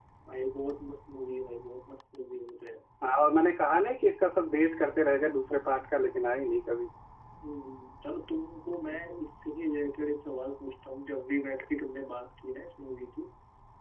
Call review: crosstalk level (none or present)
none